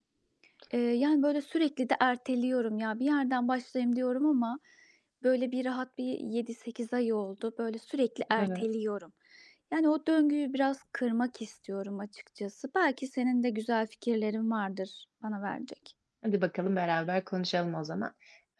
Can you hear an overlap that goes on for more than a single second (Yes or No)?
No